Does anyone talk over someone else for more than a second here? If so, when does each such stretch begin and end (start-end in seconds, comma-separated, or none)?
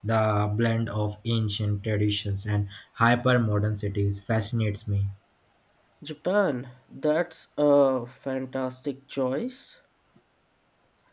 none